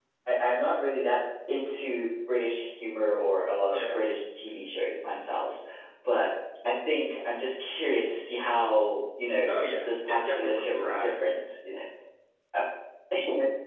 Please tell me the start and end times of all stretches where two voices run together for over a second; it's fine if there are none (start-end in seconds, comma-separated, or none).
9.8-11.1